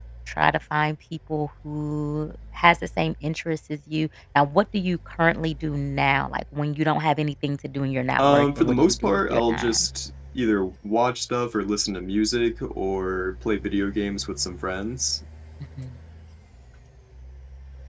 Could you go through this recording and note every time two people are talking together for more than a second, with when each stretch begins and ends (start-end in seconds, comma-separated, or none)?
8.2-9.9